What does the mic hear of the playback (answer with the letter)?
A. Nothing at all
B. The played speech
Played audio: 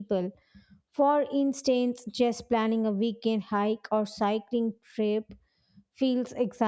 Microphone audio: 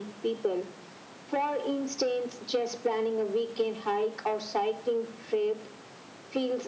B